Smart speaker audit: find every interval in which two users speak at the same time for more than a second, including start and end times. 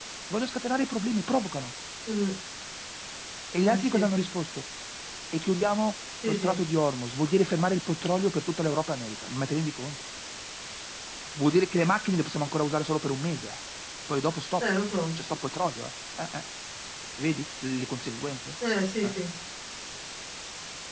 none

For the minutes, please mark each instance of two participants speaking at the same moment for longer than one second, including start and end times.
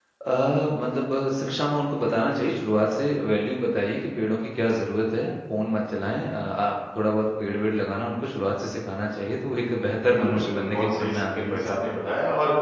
10.1-11.7

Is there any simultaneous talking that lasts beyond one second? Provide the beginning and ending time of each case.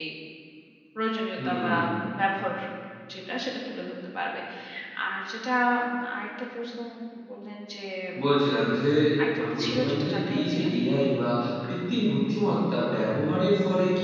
9.4-10.7

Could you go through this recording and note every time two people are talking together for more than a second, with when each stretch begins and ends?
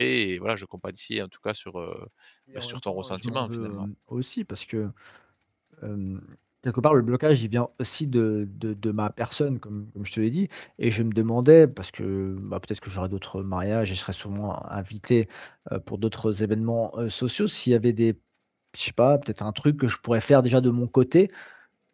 2.6-3.9

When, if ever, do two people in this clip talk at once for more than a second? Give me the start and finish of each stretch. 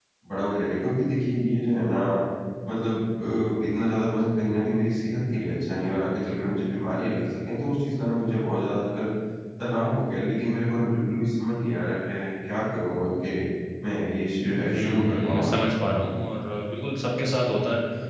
14.6-15.9

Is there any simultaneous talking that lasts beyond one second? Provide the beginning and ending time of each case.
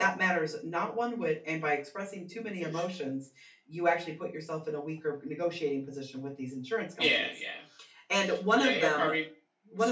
none

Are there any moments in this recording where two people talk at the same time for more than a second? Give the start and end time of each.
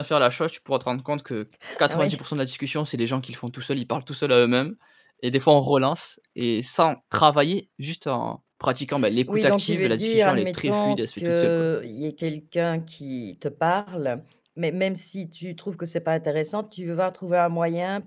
9.3-11.7

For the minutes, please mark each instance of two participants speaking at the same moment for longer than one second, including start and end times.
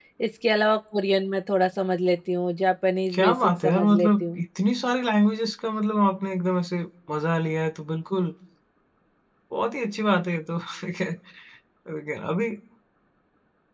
3.1-4.4

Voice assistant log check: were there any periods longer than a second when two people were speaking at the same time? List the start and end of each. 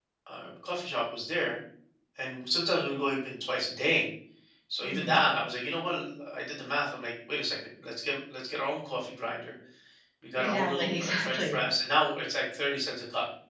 10.4-11.6

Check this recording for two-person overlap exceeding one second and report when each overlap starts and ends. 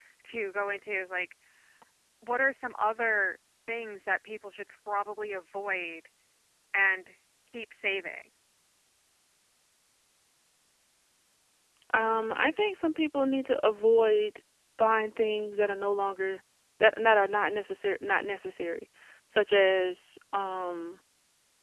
none

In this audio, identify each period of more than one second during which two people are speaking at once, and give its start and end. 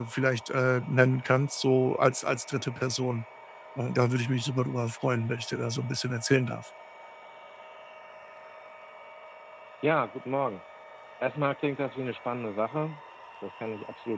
none

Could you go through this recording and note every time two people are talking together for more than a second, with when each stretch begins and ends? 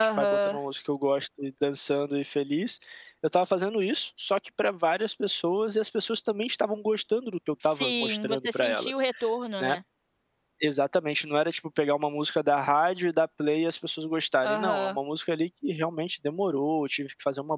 7.6-9.0

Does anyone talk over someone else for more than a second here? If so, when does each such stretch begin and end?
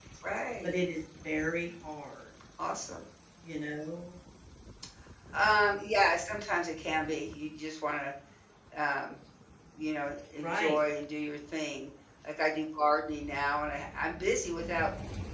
none

